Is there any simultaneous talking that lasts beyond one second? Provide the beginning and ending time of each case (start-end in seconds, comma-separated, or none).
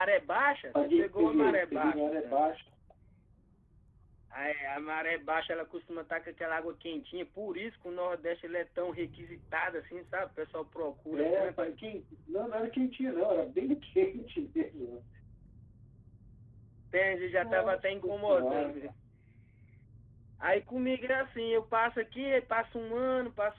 0.8-2.4, 17.3-18.9